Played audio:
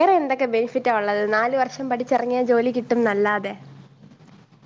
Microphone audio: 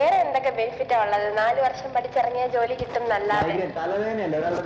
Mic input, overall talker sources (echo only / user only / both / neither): both